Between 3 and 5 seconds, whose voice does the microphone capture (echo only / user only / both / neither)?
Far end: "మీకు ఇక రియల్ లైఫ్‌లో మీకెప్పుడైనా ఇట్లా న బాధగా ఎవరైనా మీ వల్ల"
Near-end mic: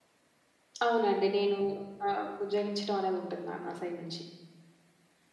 user only